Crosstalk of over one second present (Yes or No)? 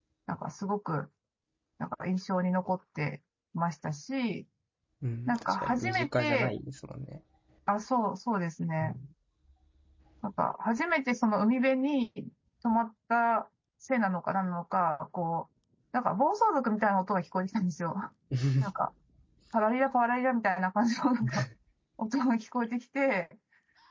Yes